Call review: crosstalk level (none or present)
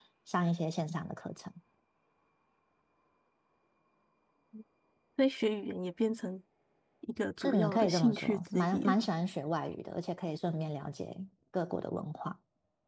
present